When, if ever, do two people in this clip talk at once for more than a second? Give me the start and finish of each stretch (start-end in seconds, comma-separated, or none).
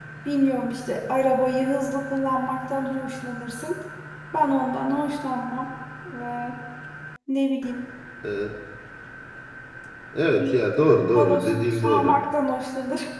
11.0-12.2